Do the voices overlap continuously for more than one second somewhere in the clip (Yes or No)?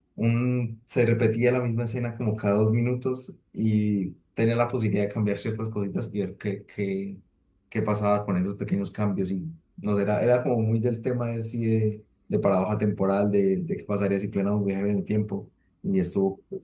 No